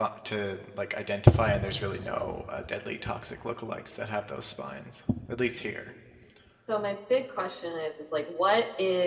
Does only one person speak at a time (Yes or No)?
Yes